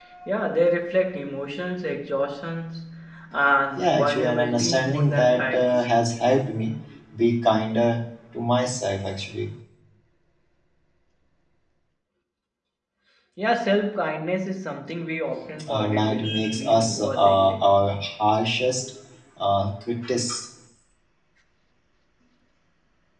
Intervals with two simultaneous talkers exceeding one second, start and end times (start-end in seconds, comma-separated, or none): 3.8-5.9, 15.7-17.8